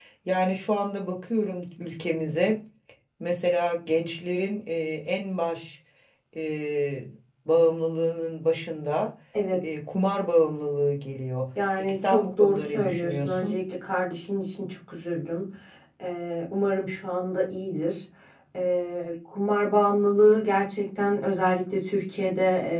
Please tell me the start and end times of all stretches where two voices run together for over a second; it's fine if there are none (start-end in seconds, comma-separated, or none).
11.8-13.6